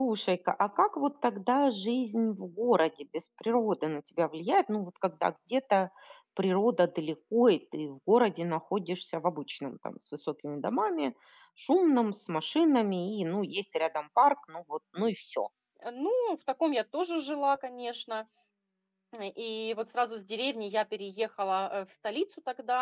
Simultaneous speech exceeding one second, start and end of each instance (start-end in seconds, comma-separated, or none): none